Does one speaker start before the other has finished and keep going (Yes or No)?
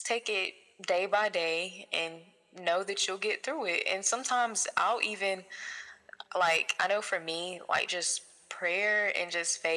No